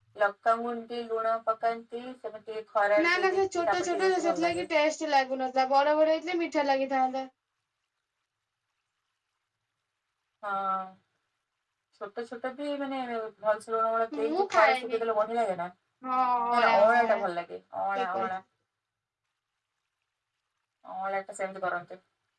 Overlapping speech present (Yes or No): Yes